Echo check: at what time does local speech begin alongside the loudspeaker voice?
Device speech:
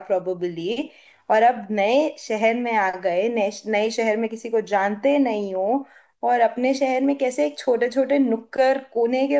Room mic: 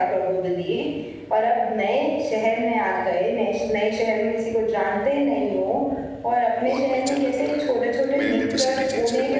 7 s

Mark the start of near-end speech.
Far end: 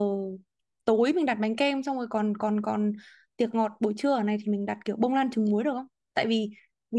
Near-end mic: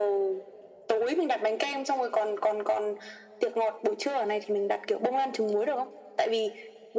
none

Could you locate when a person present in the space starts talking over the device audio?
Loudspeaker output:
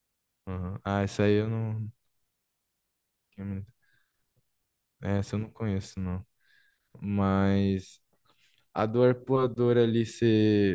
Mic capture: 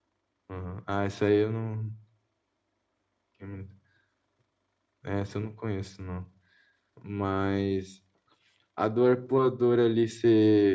none

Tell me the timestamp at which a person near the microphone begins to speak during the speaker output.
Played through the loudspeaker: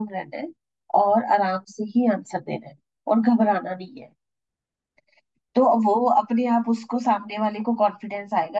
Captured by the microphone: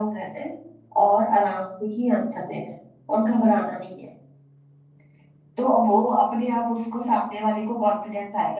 none

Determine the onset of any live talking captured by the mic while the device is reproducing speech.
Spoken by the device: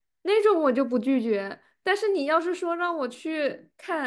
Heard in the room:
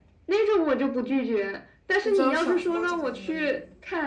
2 s

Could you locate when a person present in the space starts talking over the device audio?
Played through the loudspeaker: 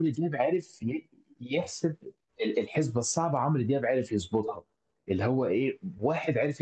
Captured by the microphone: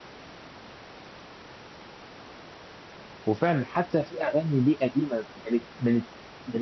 3 s

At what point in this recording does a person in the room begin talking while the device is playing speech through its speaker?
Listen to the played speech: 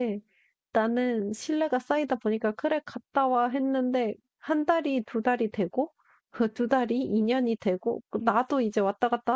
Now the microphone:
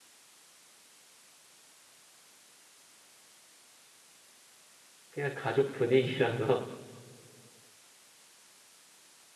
5 s

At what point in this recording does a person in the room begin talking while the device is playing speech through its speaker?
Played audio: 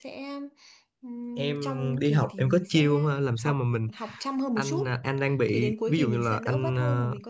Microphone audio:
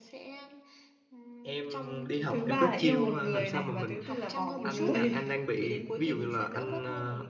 2 s

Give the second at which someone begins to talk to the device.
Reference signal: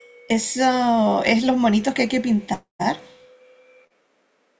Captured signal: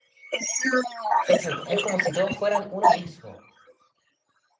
1 s

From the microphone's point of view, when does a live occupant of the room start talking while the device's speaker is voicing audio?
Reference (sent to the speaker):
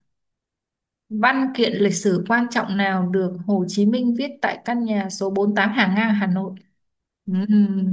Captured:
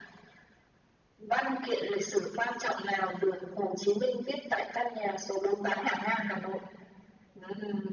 none

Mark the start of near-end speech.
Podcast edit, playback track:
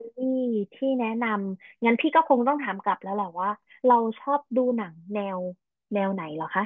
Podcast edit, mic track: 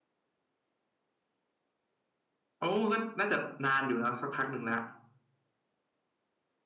3 s

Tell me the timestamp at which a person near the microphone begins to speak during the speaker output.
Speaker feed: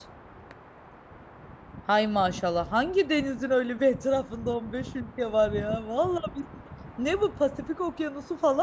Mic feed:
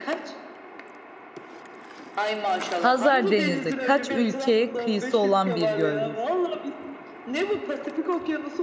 3 s

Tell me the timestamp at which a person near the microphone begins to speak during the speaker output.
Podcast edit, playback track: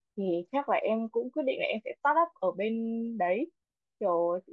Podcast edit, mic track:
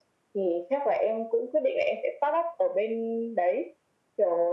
none

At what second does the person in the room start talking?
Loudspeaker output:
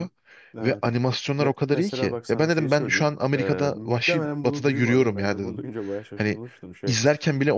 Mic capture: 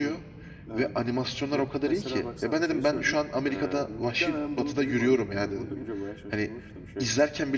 none

